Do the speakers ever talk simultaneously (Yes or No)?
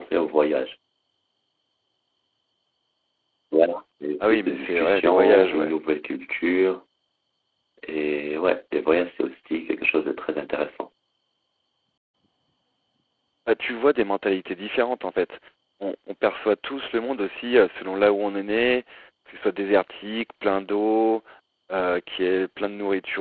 Yes